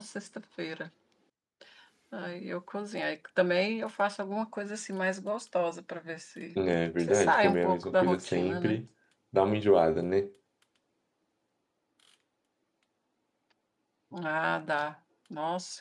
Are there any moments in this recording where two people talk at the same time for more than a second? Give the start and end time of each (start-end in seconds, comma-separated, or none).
7.0-8.8